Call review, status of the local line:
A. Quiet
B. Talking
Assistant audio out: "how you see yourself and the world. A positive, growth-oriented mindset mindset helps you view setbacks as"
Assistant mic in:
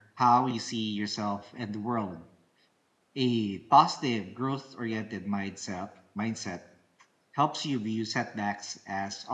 A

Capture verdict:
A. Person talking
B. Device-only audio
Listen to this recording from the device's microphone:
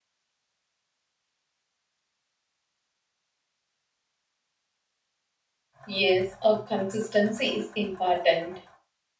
A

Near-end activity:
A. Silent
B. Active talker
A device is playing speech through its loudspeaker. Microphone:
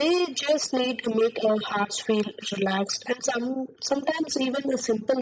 A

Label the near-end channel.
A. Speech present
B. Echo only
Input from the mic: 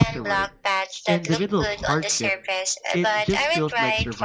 A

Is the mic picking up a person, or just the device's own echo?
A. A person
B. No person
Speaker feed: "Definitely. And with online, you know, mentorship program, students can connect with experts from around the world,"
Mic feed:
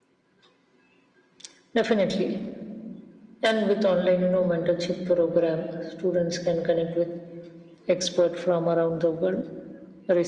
B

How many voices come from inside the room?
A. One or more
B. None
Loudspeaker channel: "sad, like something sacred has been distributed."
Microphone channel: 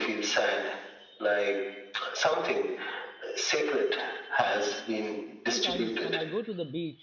A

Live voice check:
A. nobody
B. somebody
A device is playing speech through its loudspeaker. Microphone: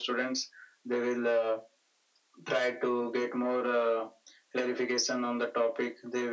A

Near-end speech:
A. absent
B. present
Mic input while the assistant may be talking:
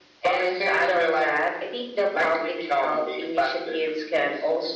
A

